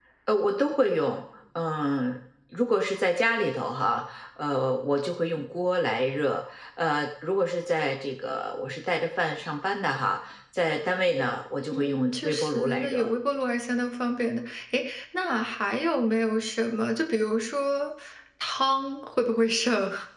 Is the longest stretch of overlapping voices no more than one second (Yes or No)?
No